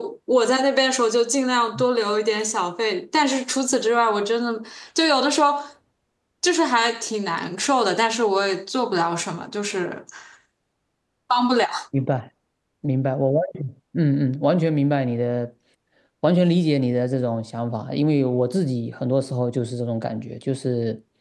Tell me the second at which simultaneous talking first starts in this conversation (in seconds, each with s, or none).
none